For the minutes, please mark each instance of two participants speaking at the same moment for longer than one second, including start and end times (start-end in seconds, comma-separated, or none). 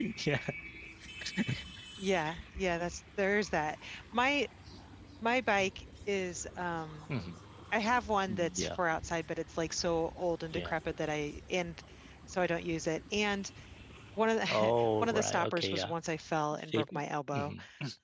14.5-15.9